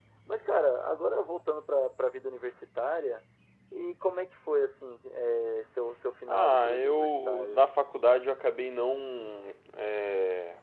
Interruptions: present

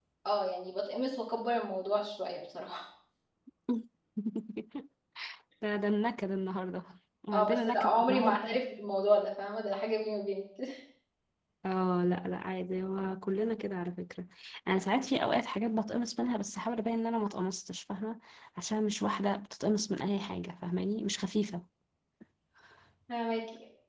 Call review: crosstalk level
present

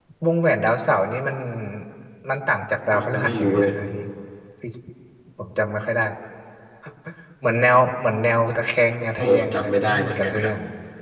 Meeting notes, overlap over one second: present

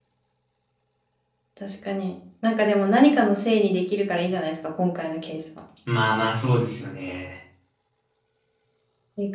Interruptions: none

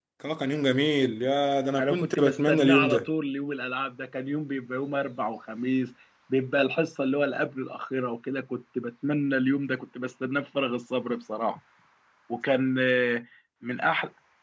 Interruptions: present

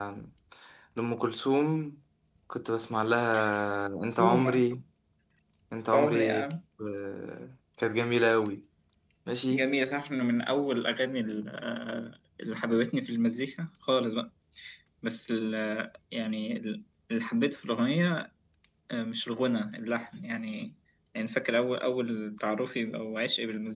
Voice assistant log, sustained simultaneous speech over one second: none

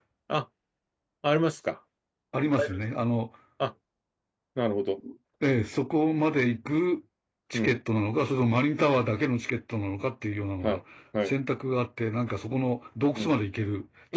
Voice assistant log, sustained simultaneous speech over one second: none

